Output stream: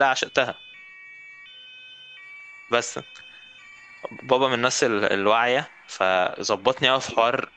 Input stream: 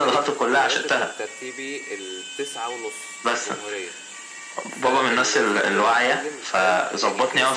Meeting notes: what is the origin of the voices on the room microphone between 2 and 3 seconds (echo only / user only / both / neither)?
user only